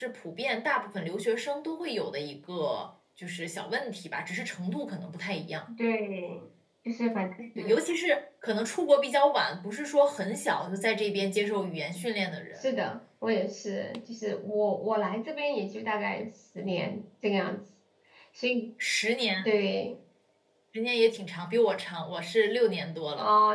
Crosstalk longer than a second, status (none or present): none